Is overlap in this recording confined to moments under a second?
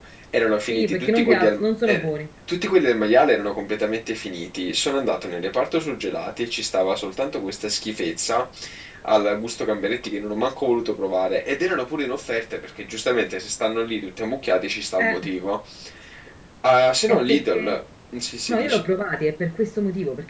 No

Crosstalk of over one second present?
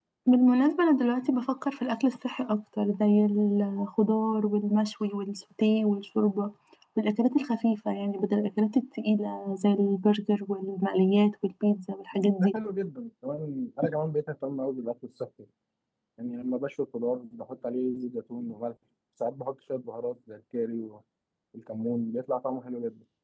No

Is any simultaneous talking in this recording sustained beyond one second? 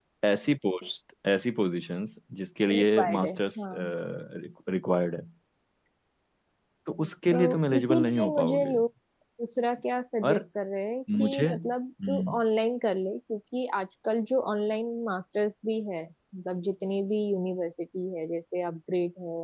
Yes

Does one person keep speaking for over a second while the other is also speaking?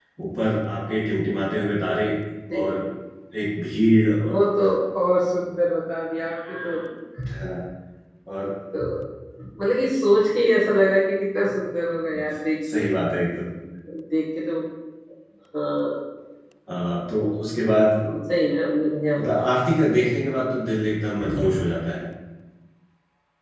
No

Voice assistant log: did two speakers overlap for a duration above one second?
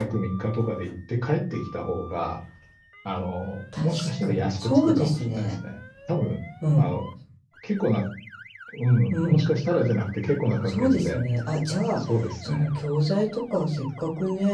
Yes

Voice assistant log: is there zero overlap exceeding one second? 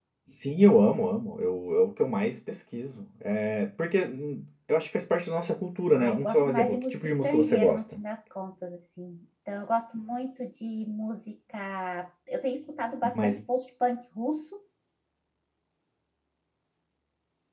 No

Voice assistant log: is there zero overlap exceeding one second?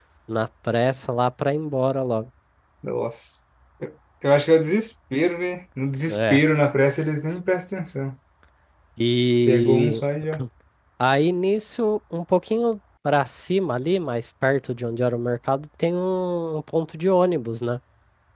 Yes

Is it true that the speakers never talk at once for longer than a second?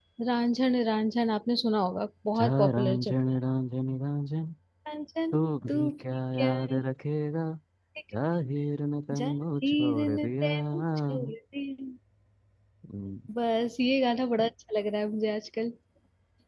No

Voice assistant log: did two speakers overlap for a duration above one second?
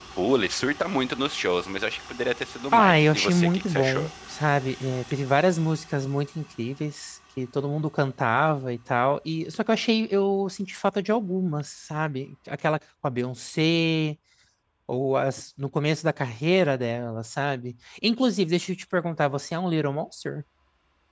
Yes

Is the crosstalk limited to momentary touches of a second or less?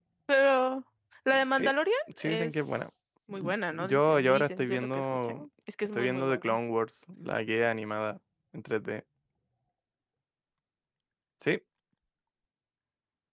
No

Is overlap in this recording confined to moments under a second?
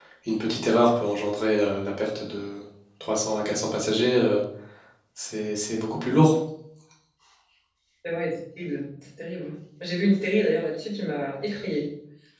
Yes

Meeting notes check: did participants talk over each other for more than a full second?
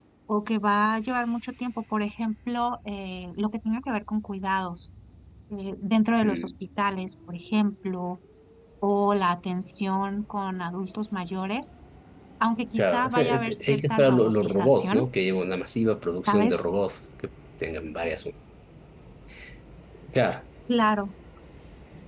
Yes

